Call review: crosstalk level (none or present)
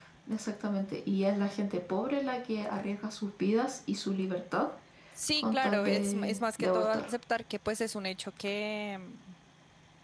present